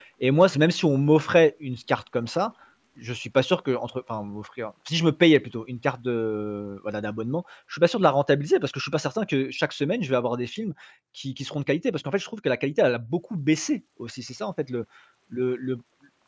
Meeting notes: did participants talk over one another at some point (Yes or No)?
No